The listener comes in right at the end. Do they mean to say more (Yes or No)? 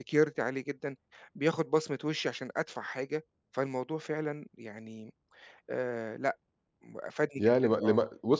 Yes